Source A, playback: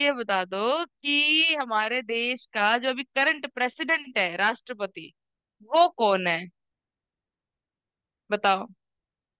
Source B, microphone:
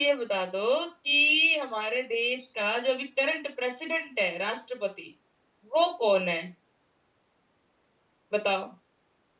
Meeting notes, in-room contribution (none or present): none